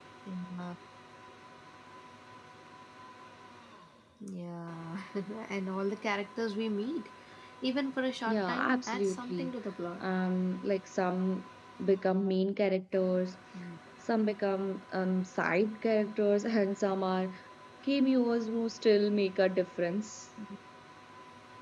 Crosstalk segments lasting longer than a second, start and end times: 8.3-9.5

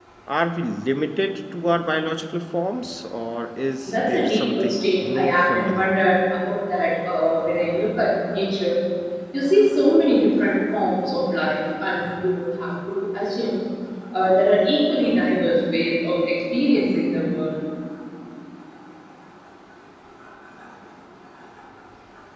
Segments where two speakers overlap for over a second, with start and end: 3.9-5.9

